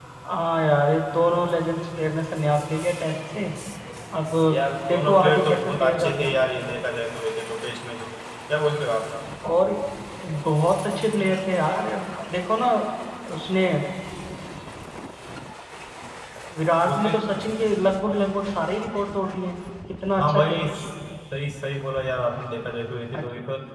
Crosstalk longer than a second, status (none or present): present